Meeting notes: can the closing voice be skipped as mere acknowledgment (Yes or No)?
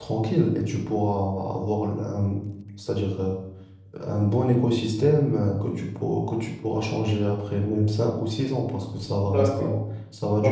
No